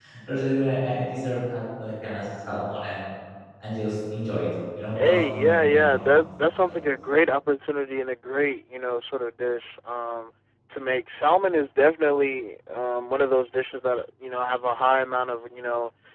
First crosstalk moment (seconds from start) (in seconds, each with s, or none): 4.9 s